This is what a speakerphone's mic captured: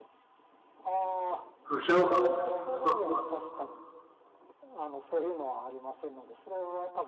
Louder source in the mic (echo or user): user